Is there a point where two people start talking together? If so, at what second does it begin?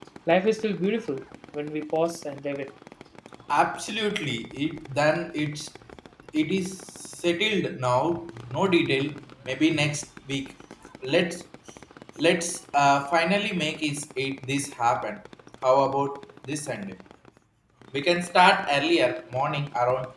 none

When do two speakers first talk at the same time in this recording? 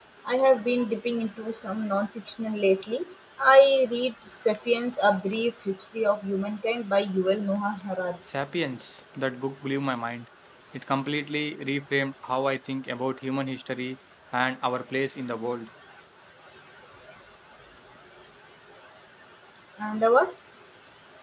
none

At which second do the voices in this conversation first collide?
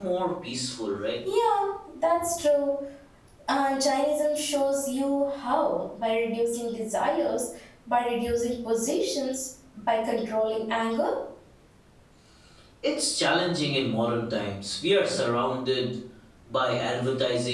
none

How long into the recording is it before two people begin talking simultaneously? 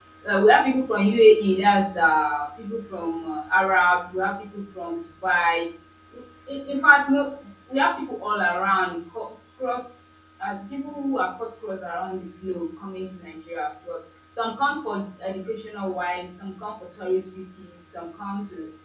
none

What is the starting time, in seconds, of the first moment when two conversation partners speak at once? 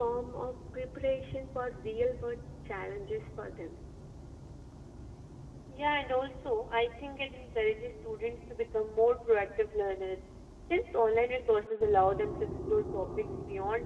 none

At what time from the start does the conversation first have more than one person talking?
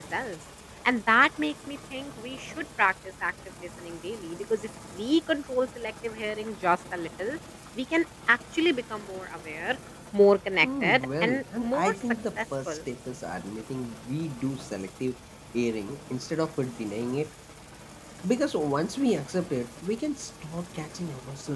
10.6 s

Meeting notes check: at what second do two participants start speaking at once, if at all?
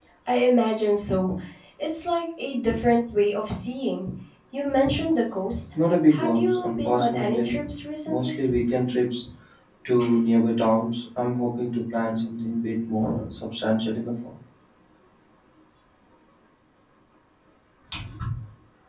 6.2 s

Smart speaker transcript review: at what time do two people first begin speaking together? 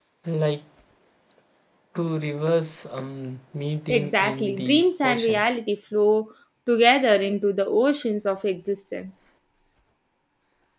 3.9 s

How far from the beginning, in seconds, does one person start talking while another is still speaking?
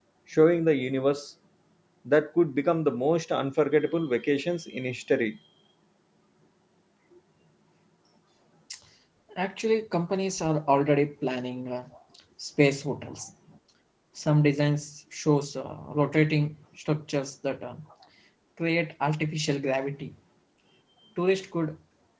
none

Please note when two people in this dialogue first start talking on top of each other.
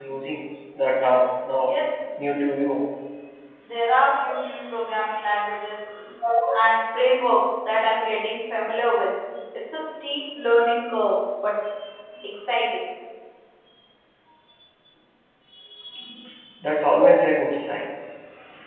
none

